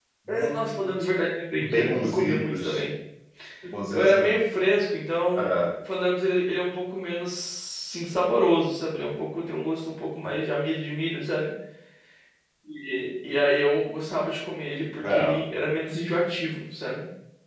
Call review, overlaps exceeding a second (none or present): present